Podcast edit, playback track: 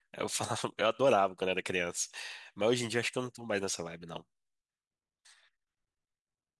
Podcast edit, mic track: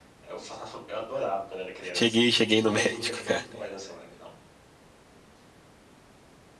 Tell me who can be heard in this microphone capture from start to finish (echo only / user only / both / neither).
both